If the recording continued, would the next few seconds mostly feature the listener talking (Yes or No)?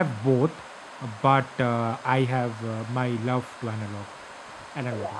Yes